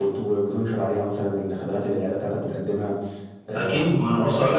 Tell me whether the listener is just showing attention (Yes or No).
No